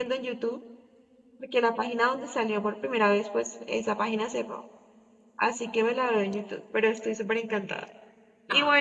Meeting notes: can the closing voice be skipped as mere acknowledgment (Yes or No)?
Yes